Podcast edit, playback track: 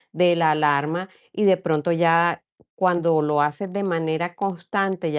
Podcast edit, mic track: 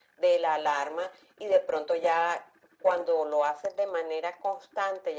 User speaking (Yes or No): No